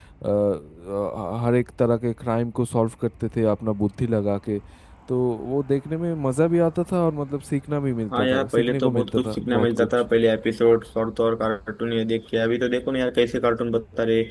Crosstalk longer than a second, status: present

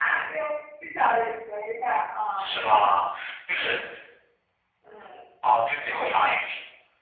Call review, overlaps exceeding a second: none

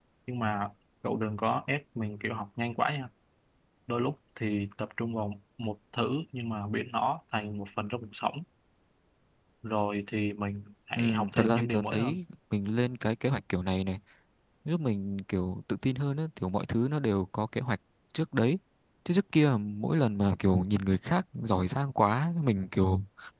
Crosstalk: present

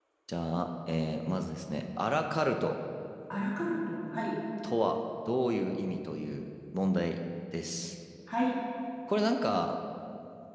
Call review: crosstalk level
none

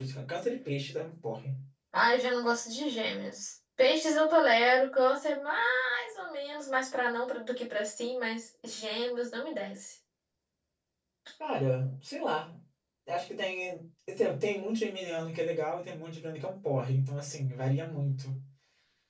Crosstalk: none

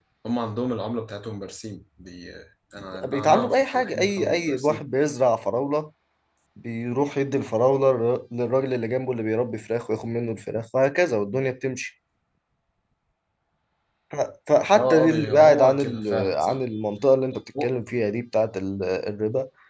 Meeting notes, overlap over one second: present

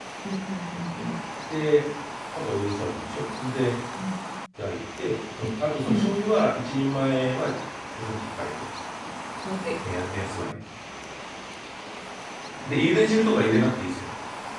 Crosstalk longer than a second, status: none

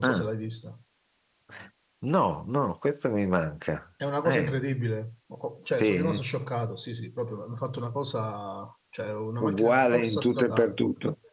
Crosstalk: present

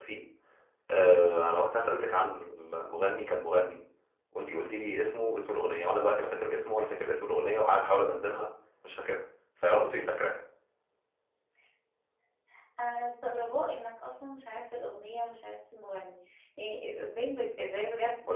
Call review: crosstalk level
none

